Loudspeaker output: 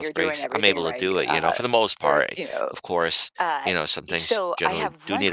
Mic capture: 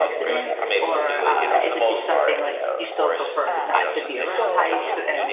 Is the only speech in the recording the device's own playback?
No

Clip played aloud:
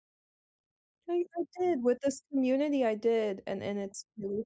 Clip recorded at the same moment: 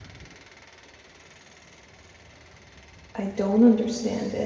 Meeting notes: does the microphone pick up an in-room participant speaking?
Yes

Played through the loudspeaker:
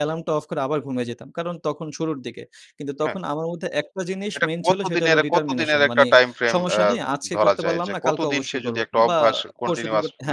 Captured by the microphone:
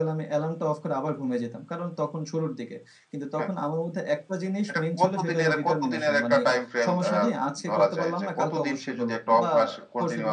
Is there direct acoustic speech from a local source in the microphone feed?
No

